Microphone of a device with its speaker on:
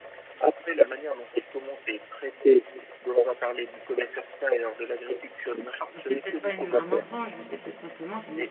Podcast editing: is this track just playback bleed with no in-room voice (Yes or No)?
No